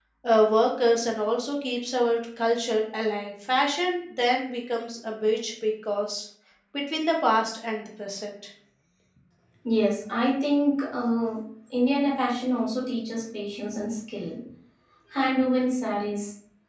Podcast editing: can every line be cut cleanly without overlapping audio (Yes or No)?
Yes